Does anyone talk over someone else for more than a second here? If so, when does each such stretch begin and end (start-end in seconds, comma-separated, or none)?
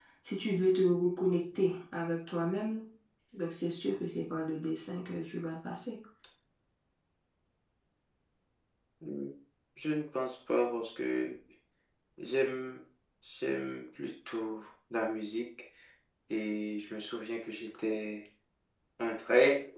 none